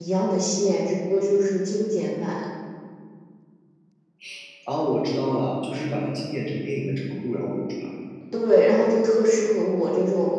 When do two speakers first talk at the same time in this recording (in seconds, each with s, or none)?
none